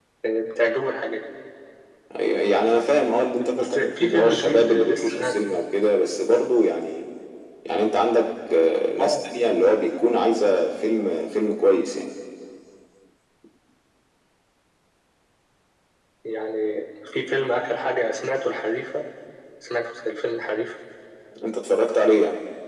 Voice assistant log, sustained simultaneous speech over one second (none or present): present